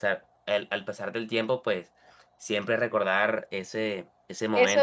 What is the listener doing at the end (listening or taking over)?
taking over